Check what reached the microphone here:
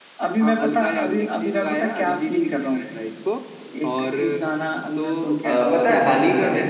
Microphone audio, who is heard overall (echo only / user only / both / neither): both